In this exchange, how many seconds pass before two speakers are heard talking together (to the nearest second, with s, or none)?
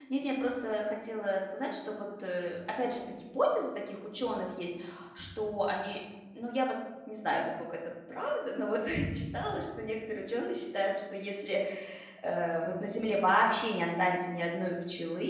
none